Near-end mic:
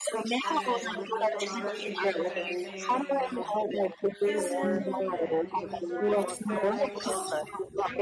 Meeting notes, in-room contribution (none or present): present